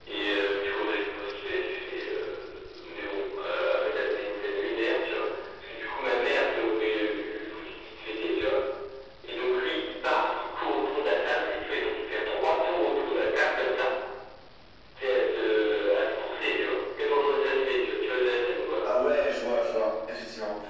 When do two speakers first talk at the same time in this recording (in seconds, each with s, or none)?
none